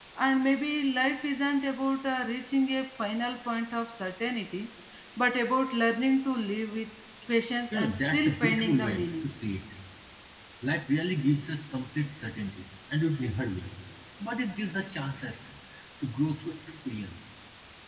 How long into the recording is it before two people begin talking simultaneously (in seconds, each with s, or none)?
7.7 s